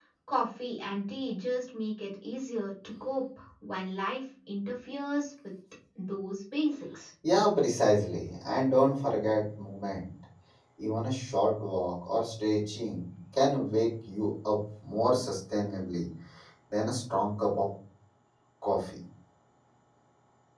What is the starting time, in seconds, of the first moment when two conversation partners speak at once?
none

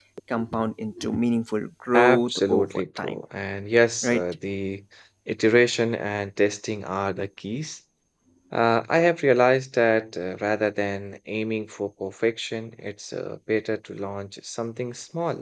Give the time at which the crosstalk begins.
1.9 s

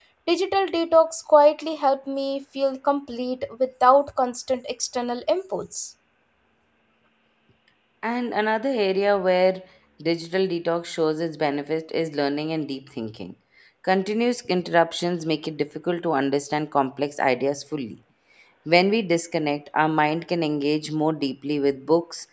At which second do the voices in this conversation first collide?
none

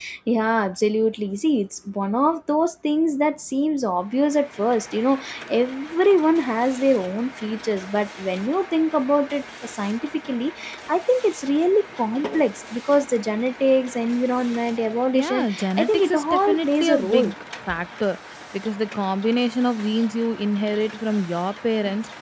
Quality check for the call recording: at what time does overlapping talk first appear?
15.1 s

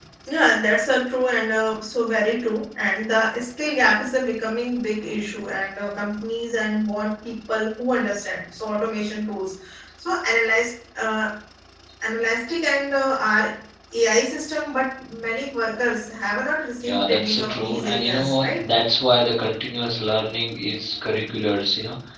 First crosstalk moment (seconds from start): 16.8 s

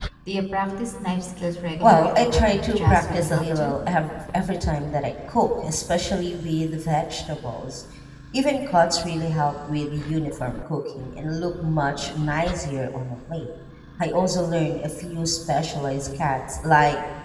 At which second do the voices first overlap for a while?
1.8 s

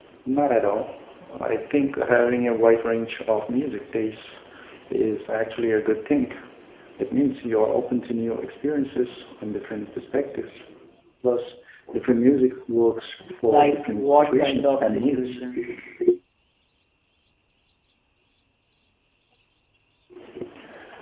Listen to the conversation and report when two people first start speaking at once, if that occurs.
13.3 s

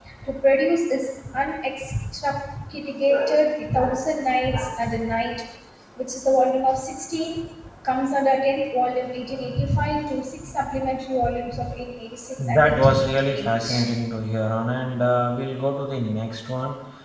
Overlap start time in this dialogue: 12.4 s

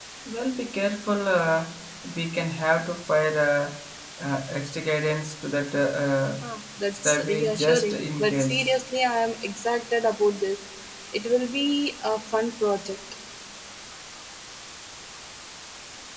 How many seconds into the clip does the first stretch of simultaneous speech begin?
6.9 s

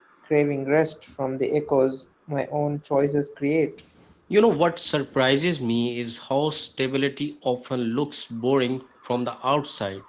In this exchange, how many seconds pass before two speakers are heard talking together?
none

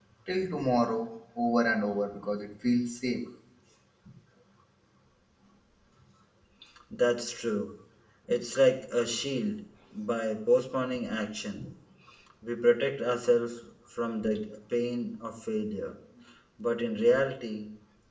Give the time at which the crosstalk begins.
none

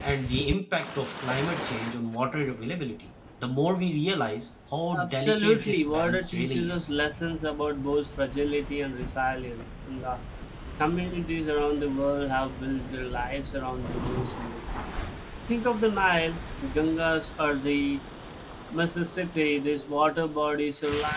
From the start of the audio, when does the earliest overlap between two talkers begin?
4.9 s

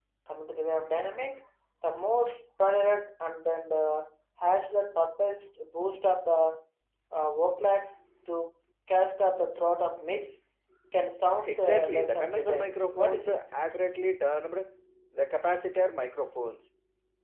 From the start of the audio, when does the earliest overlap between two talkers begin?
11.4 s

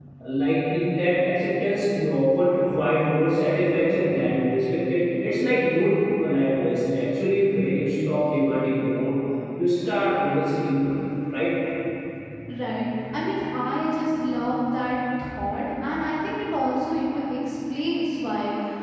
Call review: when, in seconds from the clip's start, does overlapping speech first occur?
none

